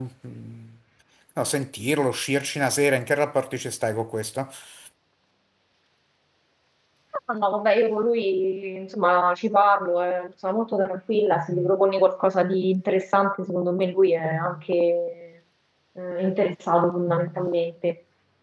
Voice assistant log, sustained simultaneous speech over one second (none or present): none